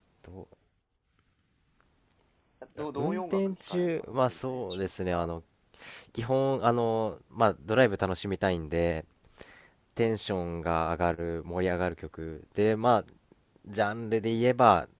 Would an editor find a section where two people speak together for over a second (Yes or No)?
Yes